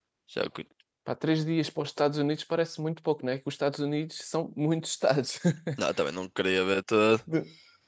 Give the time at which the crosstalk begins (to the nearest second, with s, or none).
none